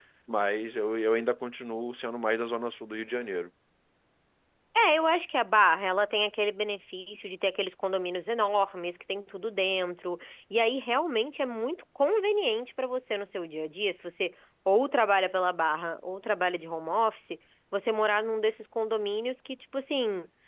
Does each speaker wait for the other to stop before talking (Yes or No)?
Yes